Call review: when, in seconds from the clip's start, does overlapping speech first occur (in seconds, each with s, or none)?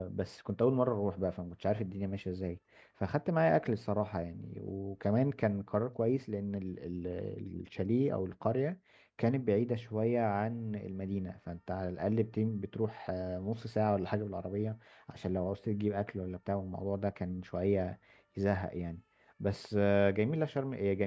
none